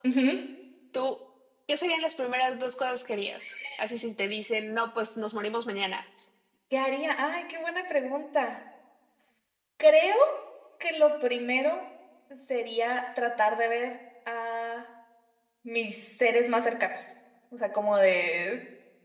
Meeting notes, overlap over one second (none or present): none